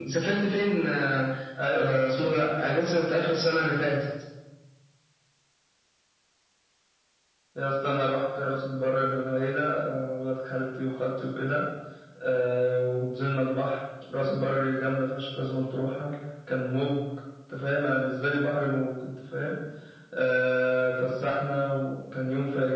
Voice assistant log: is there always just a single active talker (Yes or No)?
Yes